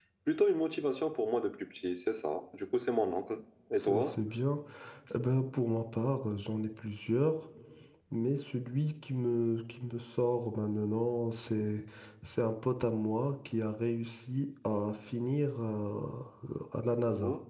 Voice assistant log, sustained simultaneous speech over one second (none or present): none